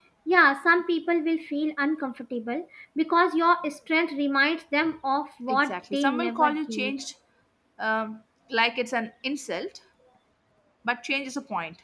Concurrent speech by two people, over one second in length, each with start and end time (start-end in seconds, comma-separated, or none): 5.5-6.9